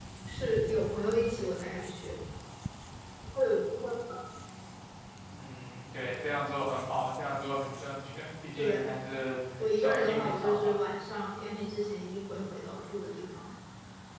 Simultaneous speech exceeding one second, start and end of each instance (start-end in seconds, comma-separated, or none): 9.6-10.8